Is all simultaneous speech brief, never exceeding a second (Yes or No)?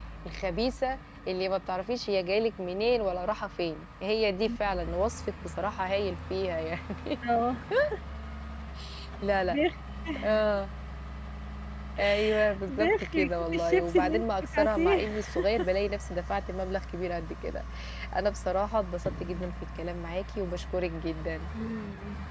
No